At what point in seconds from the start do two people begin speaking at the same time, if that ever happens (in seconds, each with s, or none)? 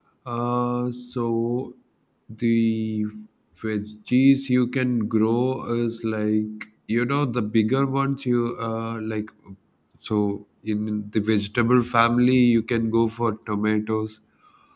none